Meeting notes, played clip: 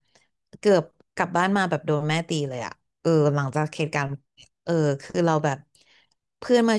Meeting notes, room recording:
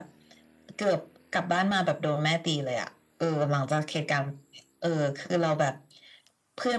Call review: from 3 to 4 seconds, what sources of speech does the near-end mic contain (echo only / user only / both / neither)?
echo only